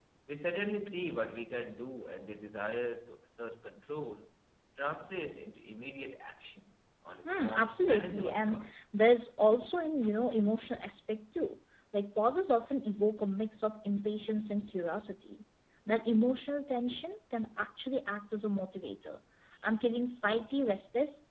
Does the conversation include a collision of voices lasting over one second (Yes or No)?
Yes